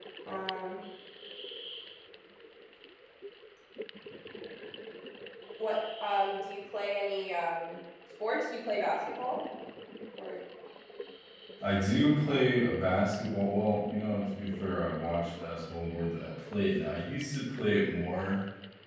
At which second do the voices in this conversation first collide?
none

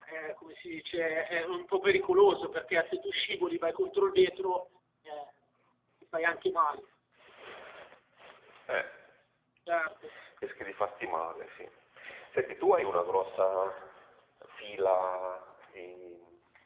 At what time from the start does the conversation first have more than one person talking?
none

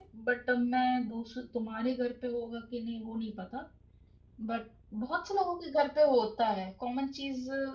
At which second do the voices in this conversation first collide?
none

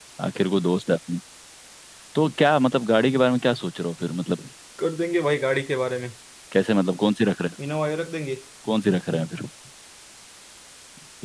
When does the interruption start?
none

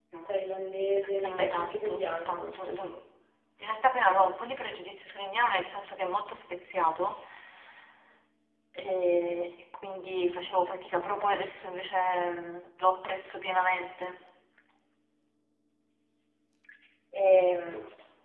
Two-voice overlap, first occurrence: 1.2 s

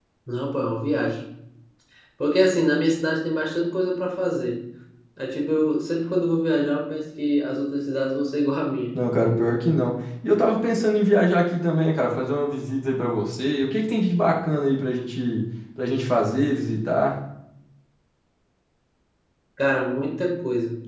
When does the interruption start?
none

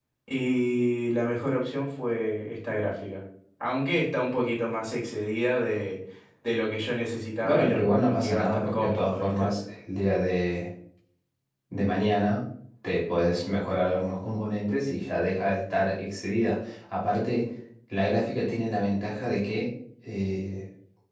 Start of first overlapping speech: 7.4 s

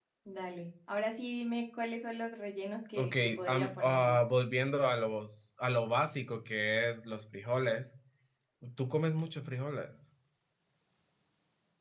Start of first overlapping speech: 3.0 s

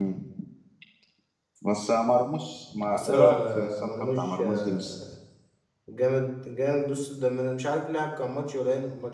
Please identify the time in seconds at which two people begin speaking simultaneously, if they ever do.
2.7 s

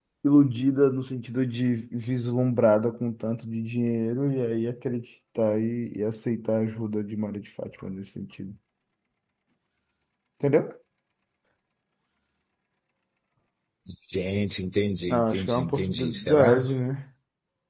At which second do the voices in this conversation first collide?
15.1 s

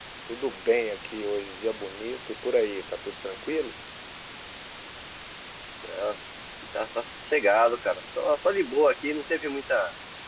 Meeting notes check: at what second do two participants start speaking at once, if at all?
none

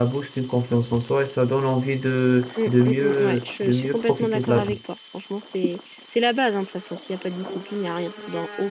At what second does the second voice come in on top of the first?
2.6 s

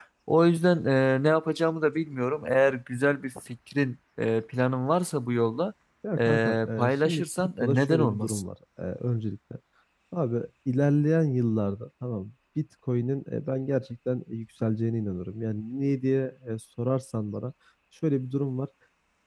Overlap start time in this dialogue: 6.2 s

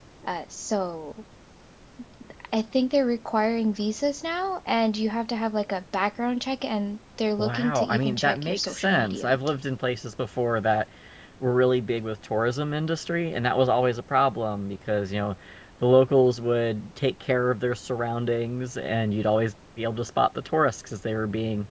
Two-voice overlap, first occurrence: 7.4 s

